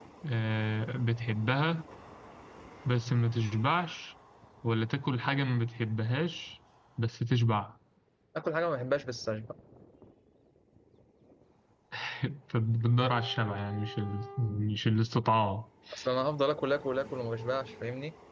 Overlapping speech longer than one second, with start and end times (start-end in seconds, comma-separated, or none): none